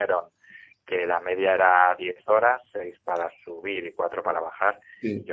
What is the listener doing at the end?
listening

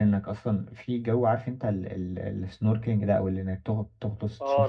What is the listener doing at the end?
taking over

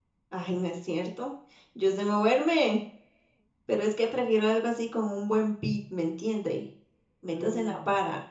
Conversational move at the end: taking over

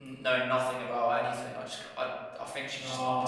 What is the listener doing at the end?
taking over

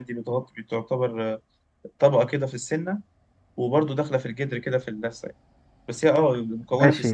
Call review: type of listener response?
taking over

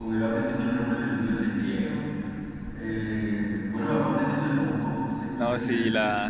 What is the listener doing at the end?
taking over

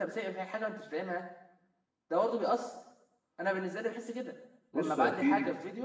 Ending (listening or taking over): taking over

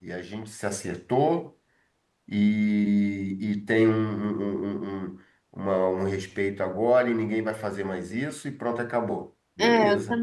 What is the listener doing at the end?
taking over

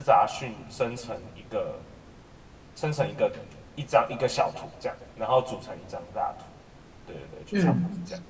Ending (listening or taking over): taking over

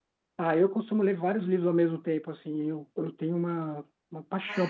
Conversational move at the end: listening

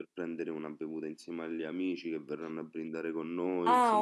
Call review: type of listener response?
taking over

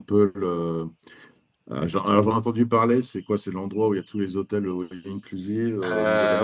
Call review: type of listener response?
taking over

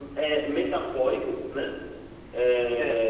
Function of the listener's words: listening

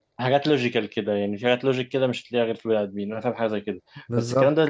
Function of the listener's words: listening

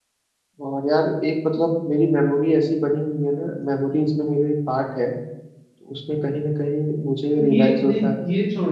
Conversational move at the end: taking over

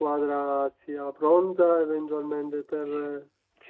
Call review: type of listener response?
taking over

